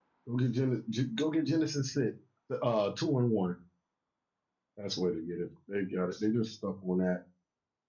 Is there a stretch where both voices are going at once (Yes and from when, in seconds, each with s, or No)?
No